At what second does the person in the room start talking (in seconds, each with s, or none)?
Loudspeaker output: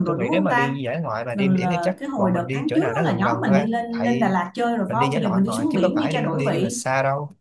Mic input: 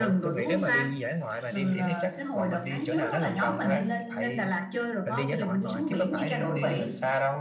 none